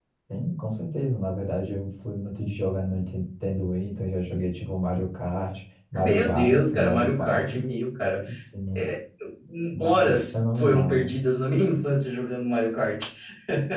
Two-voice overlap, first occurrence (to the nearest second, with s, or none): 6 s